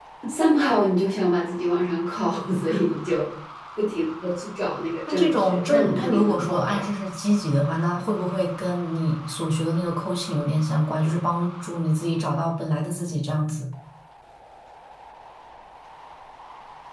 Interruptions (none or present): present